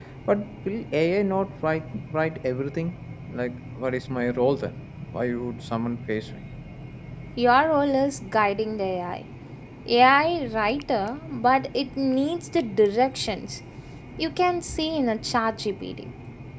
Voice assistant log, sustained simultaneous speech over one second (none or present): none